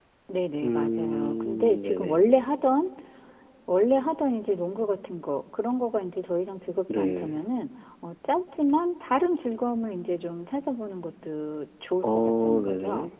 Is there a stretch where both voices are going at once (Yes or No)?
Yes